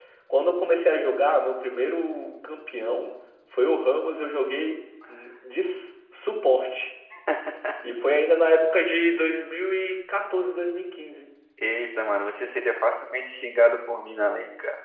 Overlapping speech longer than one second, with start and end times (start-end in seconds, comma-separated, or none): none